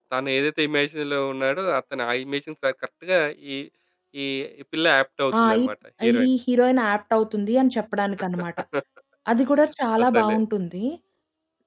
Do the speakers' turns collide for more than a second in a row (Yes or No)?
No